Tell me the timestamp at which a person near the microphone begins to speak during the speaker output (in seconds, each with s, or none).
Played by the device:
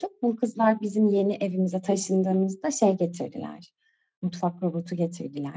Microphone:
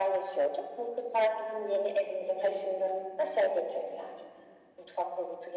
none